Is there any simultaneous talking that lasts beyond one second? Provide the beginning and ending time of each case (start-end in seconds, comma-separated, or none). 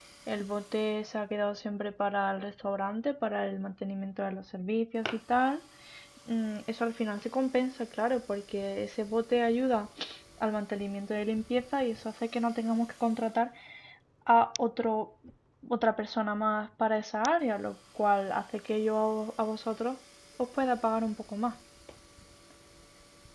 none